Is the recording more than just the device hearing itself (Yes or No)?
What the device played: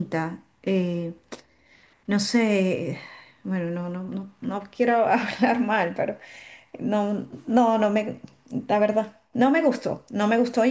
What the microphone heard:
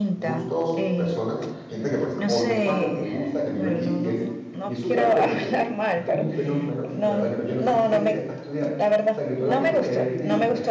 Yes